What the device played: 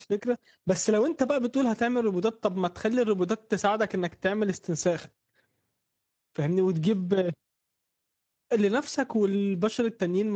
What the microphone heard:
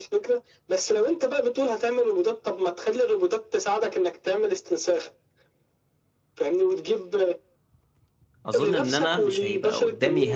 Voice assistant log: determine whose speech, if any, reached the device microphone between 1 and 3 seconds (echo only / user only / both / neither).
echo only